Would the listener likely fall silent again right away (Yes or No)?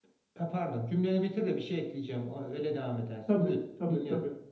No